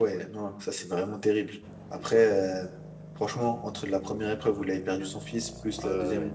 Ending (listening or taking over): listening